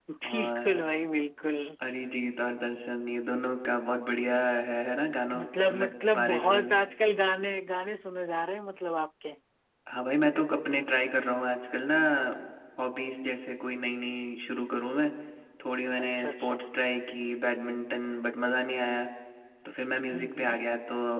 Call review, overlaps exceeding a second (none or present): present